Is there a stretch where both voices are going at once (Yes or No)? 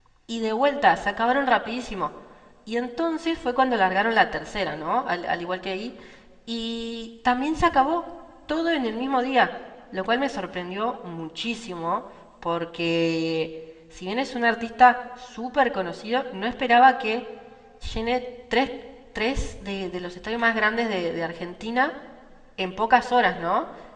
No